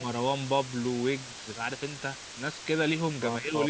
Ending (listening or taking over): listening